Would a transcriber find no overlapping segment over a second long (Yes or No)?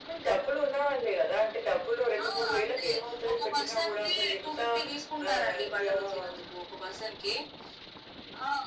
No